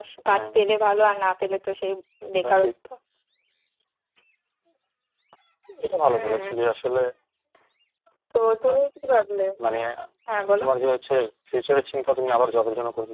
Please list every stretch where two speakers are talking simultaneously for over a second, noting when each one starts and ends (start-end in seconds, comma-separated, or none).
none